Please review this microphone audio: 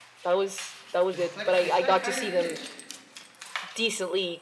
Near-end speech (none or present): present